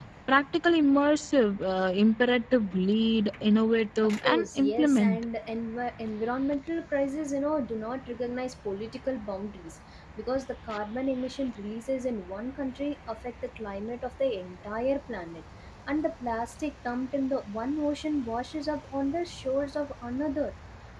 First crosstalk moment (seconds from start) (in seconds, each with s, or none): 4.0 s